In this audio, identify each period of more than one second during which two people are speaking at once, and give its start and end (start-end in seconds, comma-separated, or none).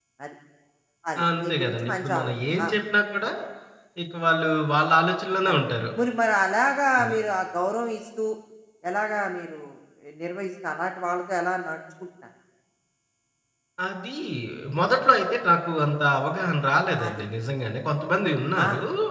1.4-2.7